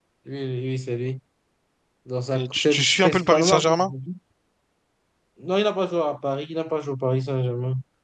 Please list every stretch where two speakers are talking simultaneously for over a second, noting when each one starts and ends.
2.4-3.9

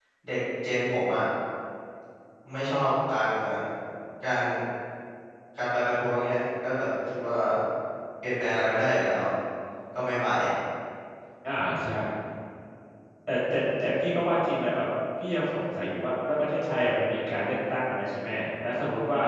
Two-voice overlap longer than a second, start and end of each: none

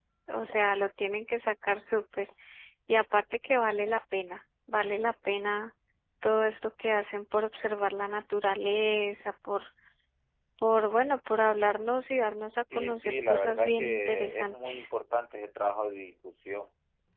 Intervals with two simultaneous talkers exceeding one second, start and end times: 12.8-14.7

